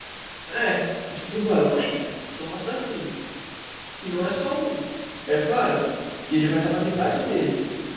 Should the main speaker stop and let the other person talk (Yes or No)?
No